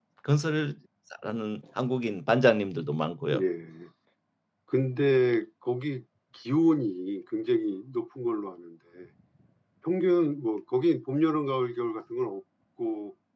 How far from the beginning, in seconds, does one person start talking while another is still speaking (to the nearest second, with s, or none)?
none